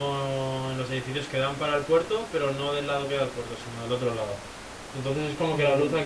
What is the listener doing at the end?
listening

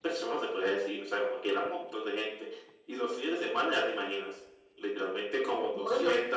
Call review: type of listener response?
listening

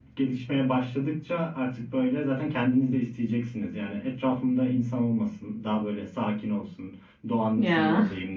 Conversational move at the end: listening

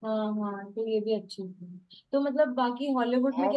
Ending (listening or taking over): listening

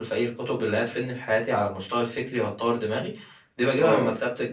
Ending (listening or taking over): listening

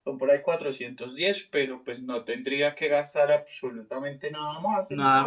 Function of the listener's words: taking over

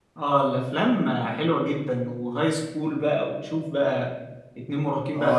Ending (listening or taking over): taking over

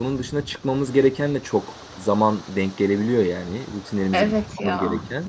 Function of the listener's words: listening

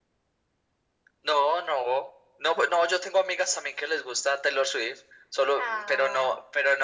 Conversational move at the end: listening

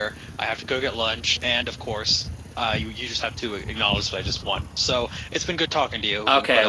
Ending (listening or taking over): taking over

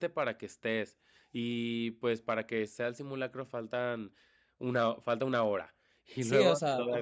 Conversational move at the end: taking over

